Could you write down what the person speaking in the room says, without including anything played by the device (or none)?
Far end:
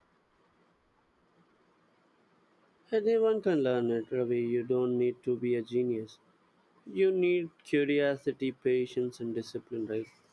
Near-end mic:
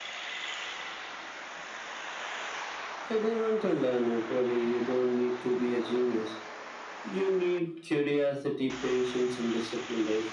none